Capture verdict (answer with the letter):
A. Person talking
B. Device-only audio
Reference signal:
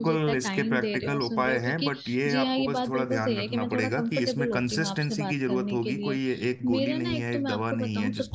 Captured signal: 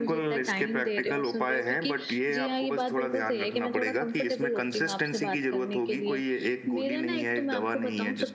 B